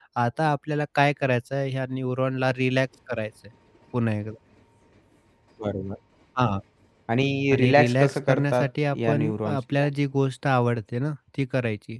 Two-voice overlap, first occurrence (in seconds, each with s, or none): 7.5 s